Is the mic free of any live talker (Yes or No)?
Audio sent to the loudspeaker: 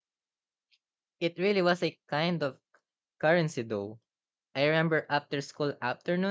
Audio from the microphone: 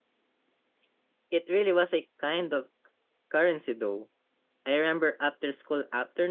Yes